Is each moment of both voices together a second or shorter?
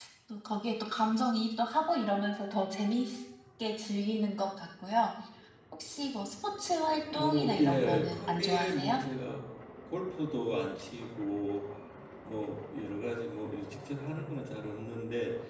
No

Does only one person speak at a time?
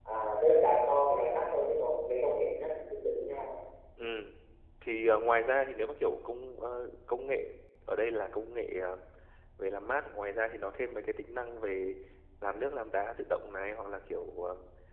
Yes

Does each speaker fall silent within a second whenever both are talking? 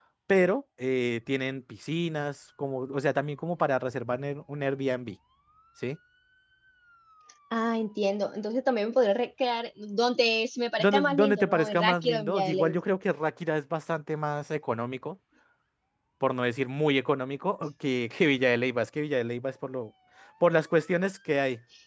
No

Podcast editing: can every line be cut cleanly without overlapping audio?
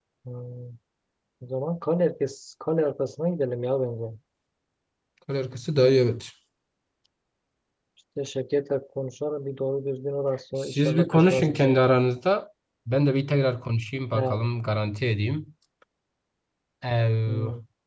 No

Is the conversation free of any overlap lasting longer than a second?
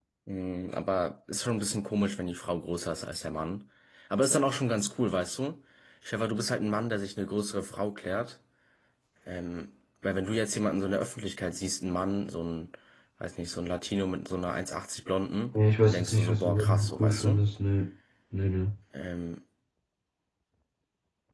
No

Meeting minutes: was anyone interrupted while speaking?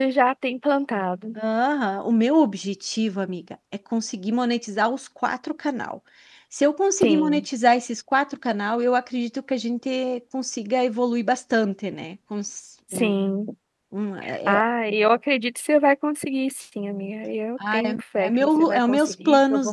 Yes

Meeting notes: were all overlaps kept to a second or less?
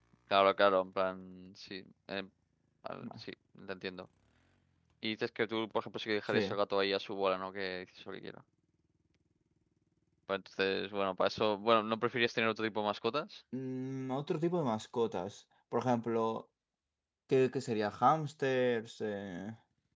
Yes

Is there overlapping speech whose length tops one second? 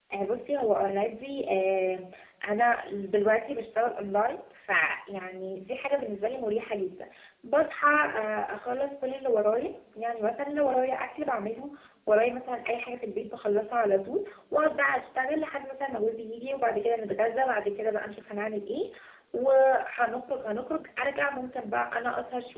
No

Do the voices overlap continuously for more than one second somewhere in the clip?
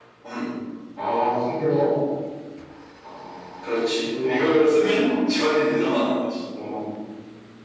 Yes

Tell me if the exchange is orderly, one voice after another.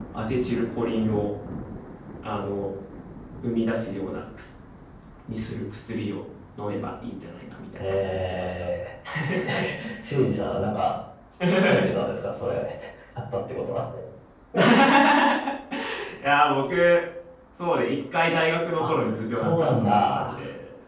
No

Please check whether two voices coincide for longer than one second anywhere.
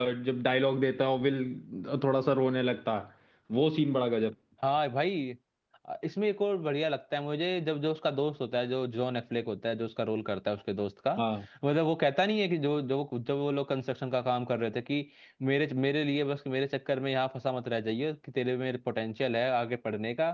No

